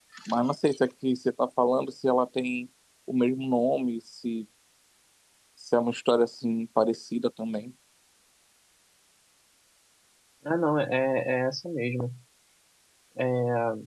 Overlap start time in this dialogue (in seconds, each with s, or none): none